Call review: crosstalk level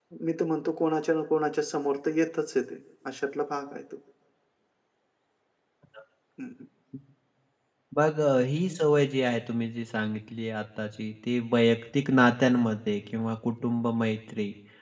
none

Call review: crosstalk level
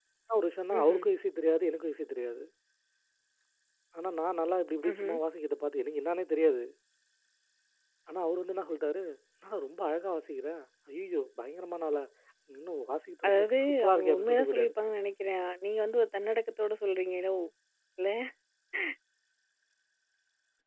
present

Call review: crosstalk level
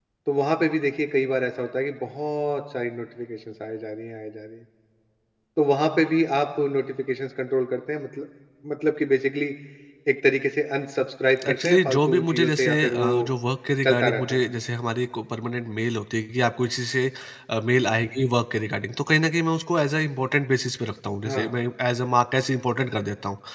present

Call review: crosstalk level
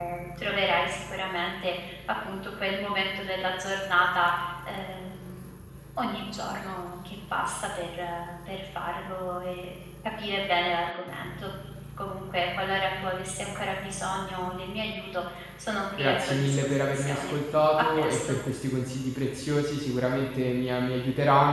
present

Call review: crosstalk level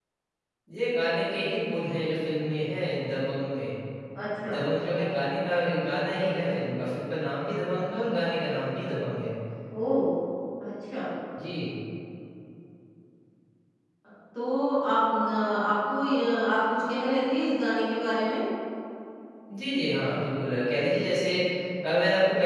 none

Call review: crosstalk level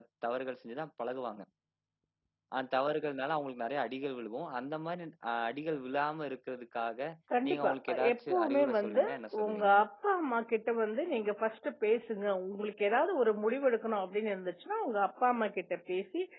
present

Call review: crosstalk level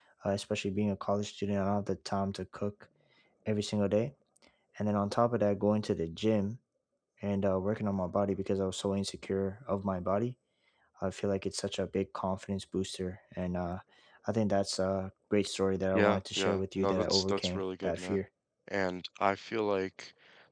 present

